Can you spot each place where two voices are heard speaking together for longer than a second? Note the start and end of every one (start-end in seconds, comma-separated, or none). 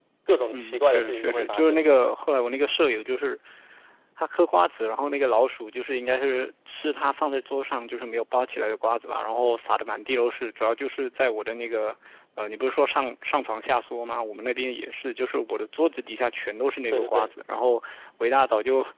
0.5-1.8